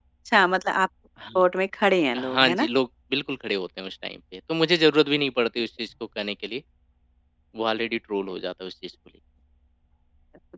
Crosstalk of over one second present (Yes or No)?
No